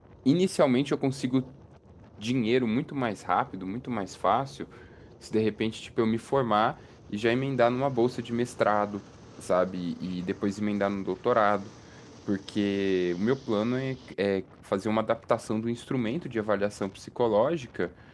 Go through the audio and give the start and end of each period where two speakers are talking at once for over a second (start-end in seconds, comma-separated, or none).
none